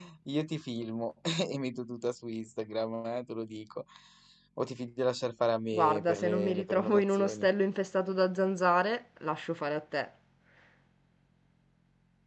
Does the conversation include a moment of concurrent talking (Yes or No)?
Yes